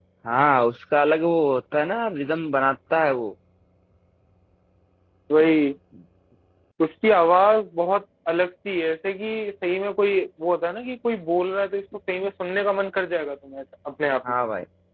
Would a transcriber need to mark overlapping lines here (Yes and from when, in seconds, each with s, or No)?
No